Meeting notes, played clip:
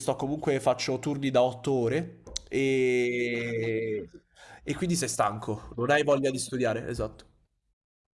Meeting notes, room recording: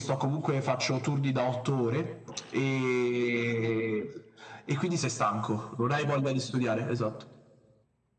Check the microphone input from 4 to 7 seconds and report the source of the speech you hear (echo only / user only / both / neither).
echo only